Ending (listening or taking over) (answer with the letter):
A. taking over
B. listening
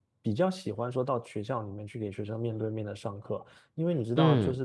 B